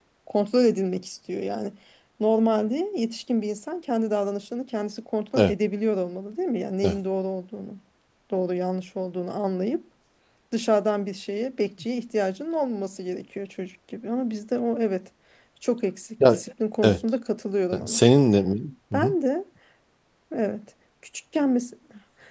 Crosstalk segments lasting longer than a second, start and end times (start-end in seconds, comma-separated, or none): none